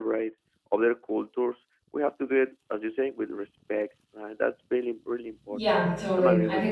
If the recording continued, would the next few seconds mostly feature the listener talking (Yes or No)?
Yes